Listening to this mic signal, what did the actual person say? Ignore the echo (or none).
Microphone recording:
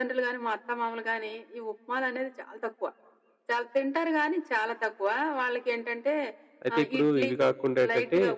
అయితే ఇప్పుడు ఇవి కాకుండా ఏంటంటే